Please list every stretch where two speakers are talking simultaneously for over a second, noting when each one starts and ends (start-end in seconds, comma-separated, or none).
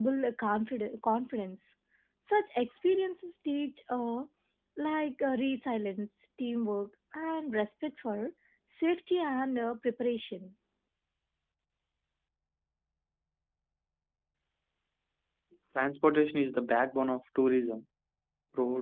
none